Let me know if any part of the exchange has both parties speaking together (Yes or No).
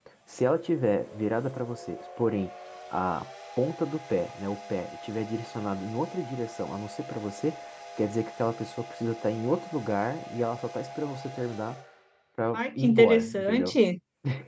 Yes